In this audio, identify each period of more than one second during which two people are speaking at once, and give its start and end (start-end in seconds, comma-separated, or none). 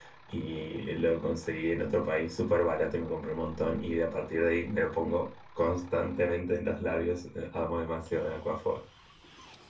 none